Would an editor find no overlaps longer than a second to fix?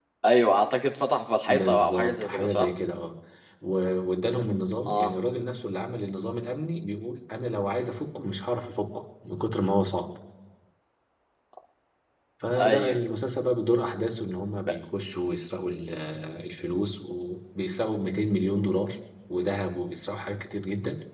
No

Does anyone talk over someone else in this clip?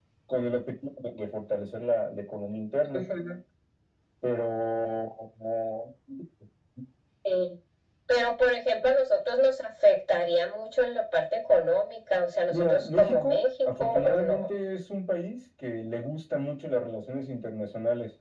Yes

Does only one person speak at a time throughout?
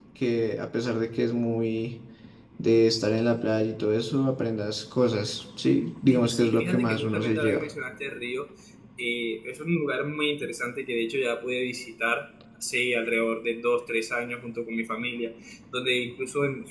No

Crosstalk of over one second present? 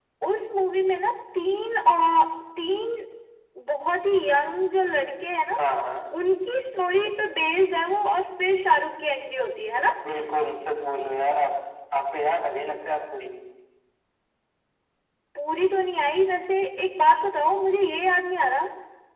No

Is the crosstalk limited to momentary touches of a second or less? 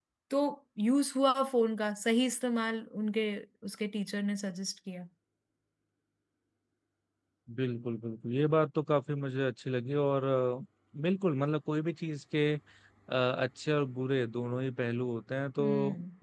Yes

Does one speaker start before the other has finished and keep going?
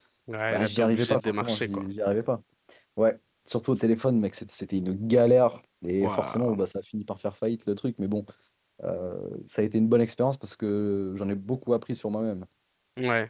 Yes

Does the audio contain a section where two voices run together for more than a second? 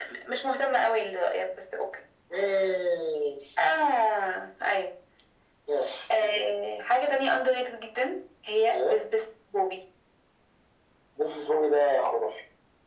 No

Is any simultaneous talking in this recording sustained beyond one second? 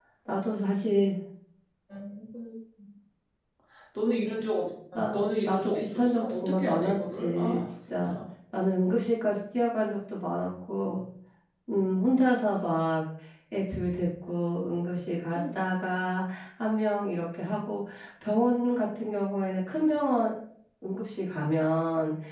Yes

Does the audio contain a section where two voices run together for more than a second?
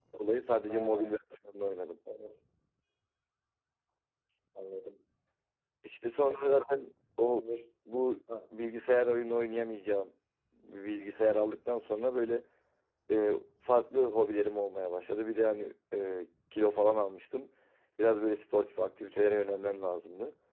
No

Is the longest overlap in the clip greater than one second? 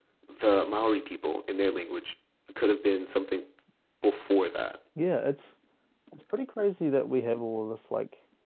No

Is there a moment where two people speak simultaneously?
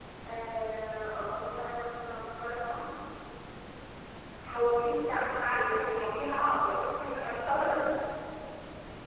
Yes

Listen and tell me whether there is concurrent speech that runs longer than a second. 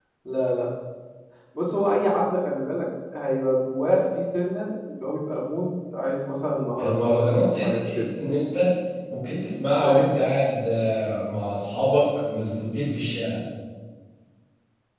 Yes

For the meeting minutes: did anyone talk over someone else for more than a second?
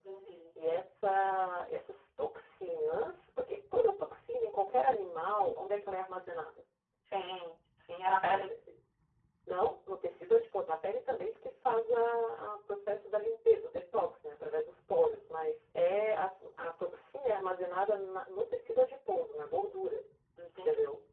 No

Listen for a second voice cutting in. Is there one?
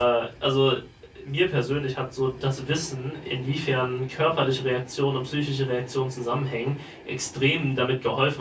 No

